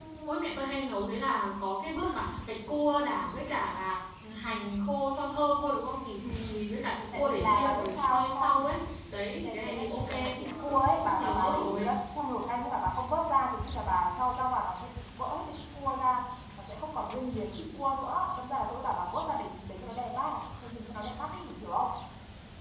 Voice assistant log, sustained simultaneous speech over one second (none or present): present